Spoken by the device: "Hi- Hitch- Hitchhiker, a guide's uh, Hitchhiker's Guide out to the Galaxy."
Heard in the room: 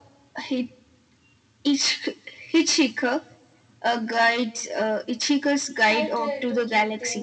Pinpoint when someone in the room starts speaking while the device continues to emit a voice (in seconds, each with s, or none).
5.9 s